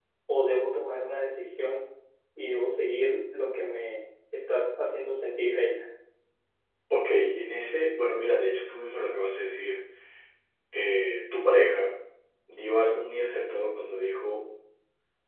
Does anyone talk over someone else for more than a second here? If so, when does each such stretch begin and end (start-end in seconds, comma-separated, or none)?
none